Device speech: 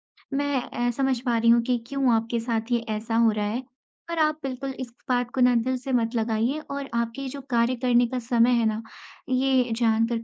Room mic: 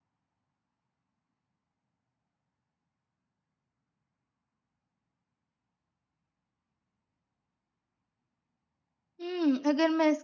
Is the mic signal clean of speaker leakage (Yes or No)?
Yes